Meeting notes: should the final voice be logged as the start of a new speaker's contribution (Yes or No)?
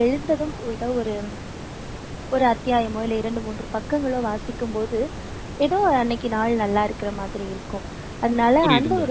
No